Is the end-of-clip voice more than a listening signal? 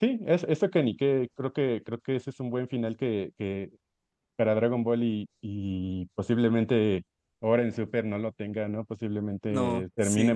No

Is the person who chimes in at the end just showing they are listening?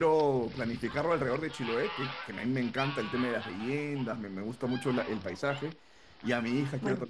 Yes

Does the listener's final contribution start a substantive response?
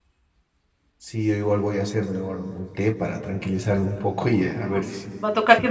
Yes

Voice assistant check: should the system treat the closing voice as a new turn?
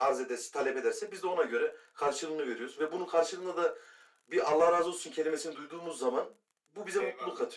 Yes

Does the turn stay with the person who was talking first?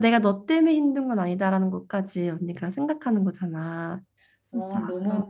No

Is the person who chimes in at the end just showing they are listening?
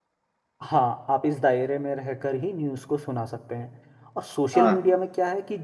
Yes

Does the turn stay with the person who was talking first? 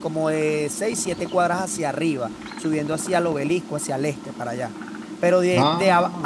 Yes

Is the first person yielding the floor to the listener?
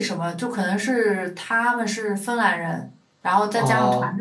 No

